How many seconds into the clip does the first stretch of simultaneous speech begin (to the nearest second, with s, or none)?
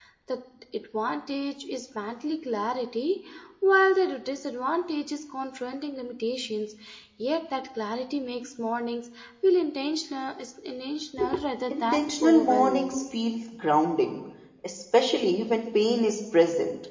12 s